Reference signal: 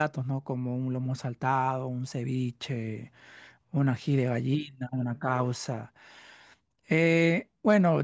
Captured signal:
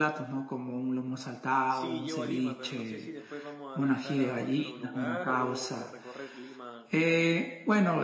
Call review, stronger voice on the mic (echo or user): echo